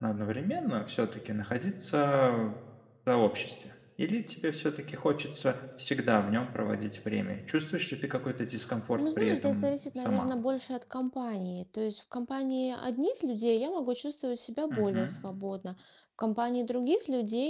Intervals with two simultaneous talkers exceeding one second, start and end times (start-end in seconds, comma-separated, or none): 9.0-10.3